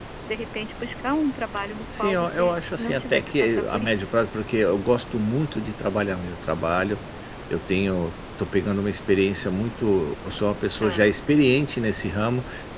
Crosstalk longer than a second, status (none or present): present